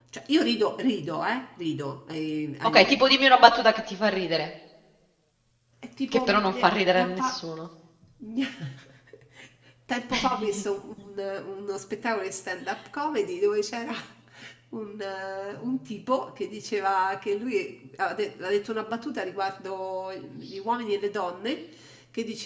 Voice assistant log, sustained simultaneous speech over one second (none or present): present